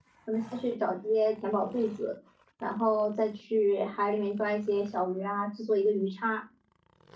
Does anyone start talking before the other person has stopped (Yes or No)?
No